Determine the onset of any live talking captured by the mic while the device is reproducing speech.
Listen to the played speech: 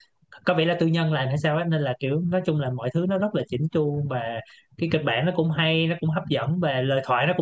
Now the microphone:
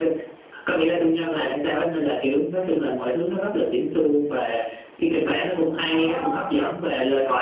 5.8 s

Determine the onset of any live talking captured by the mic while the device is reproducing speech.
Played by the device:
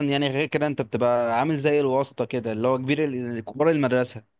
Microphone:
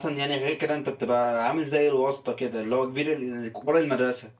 none

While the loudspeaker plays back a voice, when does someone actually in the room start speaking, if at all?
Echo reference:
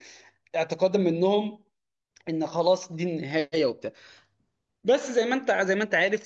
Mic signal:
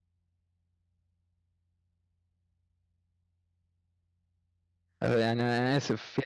5.0 s

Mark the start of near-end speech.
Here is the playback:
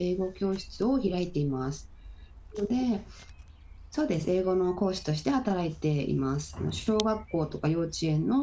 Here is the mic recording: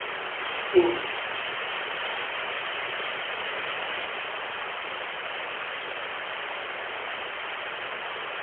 0.7 s

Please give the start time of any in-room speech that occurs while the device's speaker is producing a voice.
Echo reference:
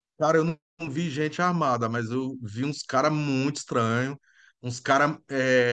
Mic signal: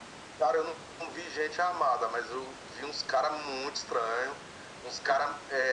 none

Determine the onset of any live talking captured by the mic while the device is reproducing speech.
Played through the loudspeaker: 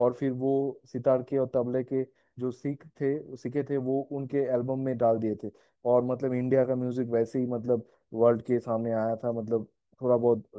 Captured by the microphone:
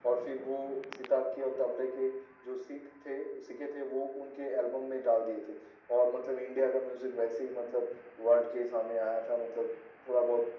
none

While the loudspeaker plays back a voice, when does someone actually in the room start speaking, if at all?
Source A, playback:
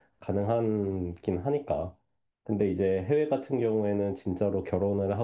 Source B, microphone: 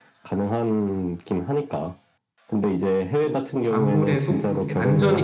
3.2 s

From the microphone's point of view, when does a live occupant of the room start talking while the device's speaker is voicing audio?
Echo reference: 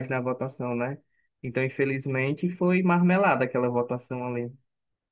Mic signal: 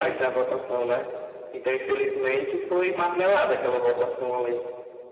none

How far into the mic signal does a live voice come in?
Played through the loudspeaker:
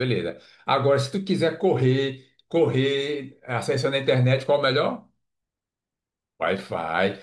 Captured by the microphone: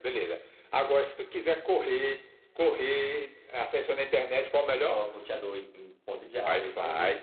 4.7 s

